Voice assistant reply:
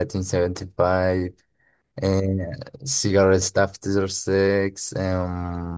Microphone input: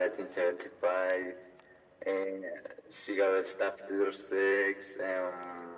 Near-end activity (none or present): none